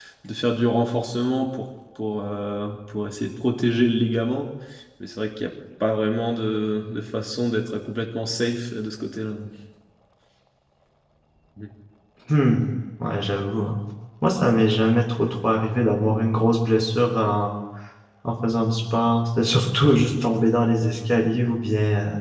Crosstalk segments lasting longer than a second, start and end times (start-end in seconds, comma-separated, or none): none